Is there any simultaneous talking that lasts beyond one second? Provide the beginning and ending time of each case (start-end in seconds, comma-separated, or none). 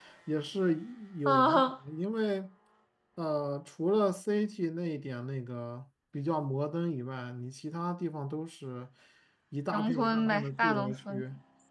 9.7-11.2